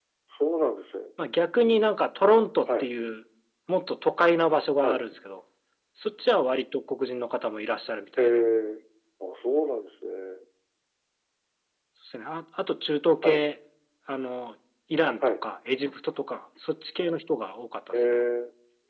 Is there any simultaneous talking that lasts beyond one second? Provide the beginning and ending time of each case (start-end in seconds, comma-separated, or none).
none